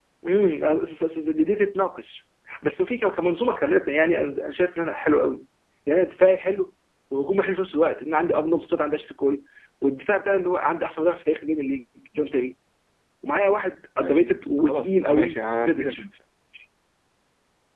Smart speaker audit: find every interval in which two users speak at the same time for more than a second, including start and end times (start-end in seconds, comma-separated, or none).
14.0-16.0